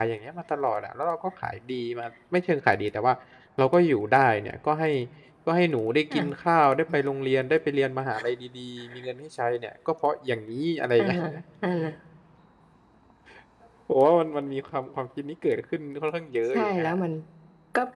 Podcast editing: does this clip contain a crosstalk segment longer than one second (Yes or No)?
No